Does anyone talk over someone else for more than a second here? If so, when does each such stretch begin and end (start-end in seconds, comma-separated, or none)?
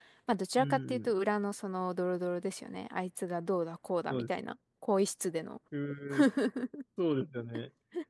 none